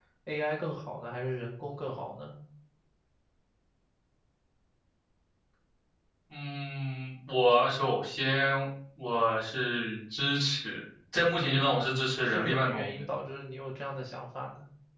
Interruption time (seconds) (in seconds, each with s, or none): 11.6 s